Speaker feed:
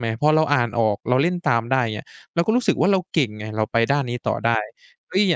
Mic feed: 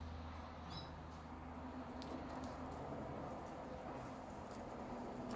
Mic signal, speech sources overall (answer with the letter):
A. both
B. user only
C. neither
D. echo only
C